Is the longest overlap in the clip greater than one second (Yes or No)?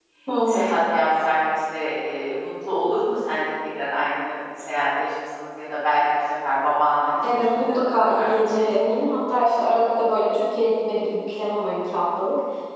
Yes